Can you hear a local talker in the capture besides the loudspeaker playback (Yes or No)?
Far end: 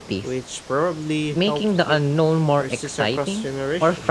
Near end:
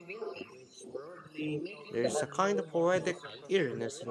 Yes